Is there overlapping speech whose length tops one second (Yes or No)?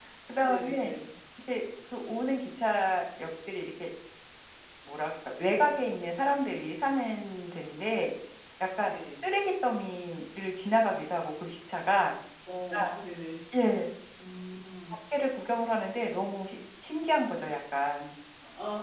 No